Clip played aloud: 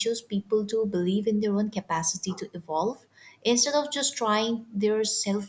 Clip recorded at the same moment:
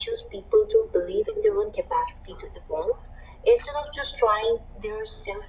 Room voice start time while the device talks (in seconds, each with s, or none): none